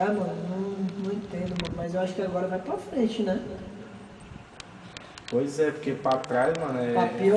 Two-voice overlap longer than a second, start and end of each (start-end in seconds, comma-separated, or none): none